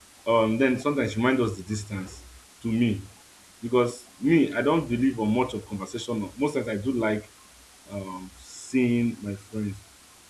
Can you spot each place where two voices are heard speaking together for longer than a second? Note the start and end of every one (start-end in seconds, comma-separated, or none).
none